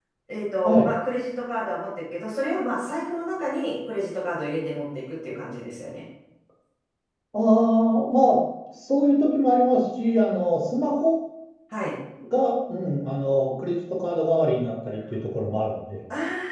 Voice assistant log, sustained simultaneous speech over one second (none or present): none